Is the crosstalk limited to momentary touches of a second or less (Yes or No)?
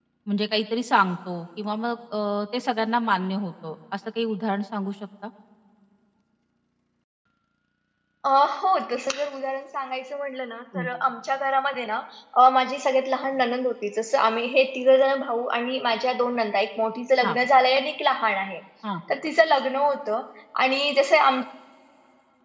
Yes